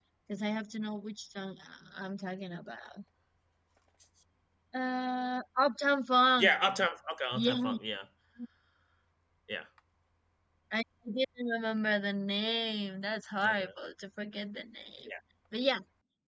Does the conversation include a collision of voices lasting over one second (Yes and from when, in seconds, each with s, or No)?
No